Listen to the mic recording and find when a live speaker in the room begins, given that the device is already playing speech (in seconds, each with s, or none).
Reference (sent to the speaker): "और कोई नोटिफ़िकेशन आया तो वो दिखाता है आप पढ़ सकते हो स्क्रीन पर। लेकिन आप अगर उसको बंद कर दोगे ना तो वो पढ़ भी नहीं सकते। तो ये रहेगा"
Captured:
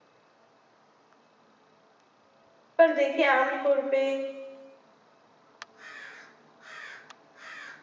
2.8 s